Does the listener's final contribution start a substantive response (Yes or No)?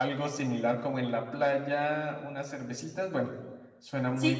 Yes